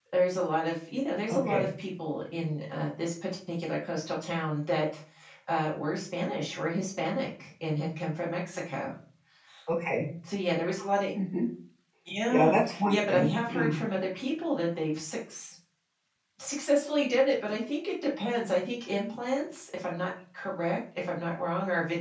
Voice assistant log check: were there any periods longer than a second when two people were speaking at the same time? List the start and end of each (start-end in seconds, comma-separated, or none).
12.3-13.7